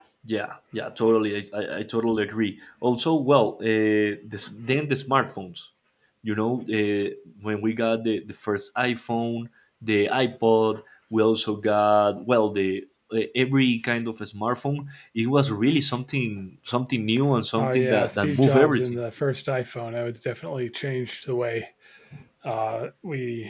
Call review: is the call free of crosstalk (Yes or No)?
No